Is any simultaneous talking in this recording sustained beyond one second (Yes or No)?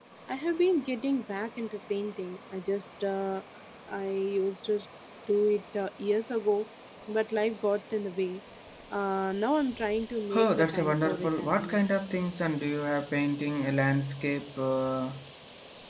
Yes